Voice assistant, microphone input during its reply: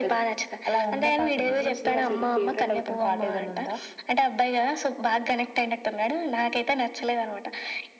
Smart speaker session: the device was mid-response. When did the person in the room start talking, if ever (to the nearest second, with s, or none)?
none